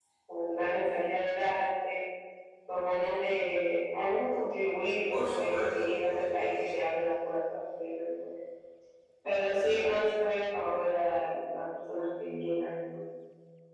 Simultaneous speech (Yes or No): Yes